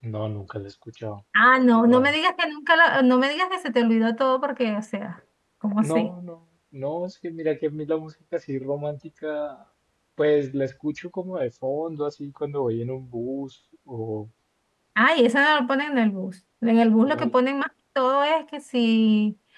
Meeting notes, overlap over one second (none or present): none